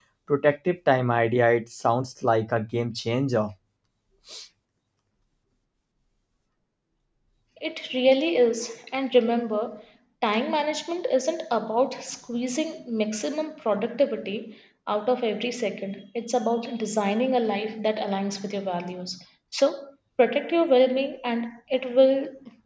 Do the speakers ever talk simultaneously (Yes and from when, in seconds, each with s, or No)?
No